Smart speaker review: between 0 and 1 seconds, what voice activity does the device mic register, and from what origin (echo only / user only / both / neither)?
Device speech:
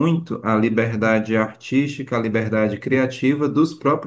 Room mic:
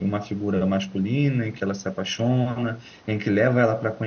user only